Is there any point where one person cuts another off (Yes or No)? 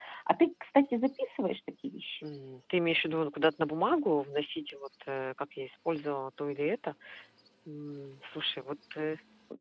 No